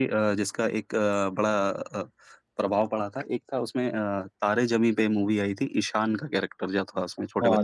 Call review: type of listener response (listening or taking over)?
taking over